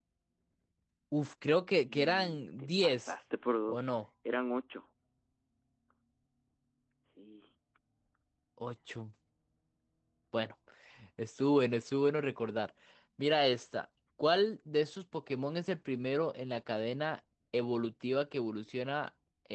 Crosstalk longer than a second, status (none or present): present